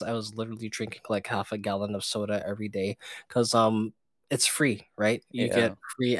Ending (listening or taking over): listening